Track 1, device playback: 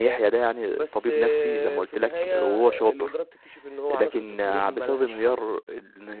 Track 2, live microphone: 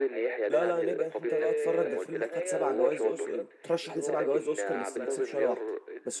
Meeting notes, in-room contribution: present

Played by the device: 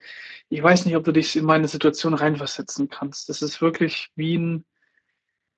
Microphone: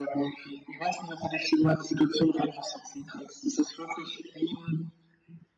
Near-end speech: none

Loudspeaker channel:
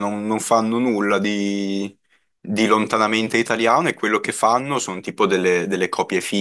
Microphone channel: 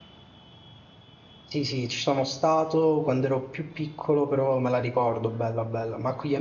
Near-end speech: present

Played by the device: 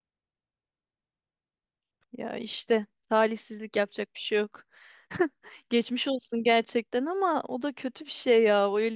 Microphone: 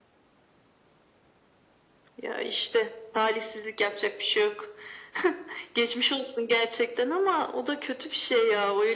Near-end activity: none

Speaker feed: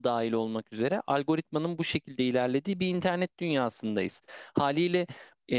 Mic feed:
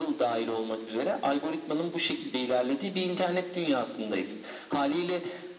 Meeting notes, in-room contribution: none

